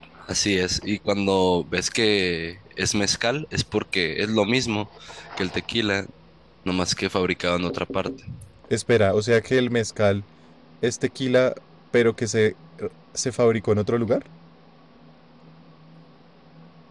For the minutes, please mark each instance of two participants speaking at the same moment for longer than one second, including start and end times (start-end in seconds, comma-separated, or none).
none